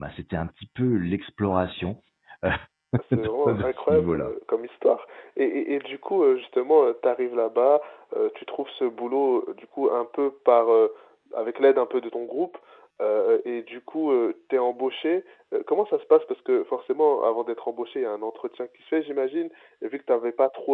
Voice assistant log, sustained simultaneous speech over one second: present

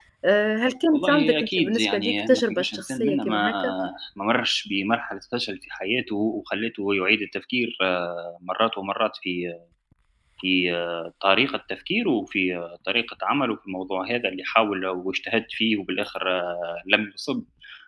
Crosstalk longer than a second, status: present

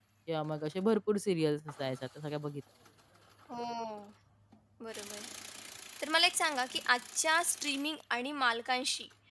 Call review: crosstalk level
none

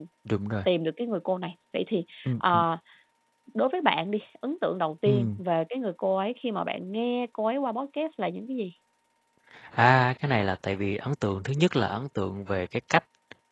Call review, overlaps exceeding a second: none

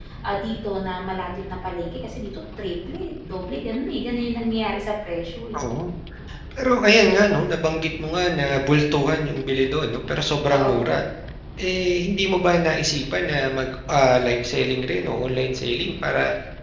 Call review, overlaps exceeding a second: none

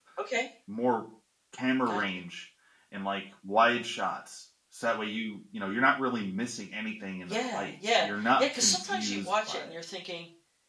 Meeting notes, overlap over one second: present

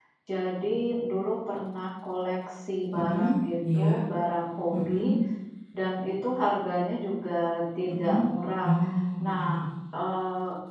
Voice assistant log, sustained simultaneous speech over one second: none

